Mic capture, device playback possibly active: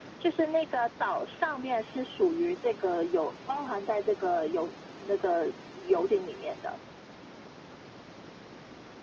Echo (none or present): present